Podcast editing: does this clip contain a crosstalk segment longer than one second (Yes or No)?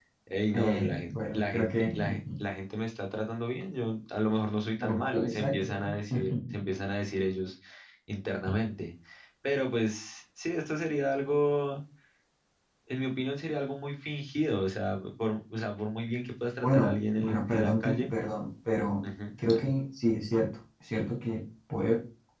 Yes